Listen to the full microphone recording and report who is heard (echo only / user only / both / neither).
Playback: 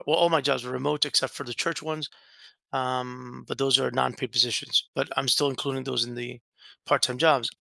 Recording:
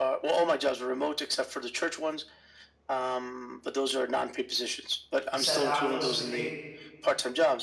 both